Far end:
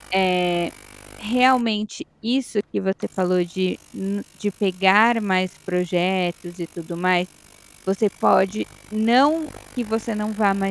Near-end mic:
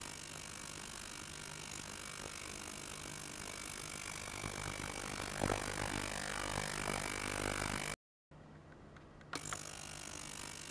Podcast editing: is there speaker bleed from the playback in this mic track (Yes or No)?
No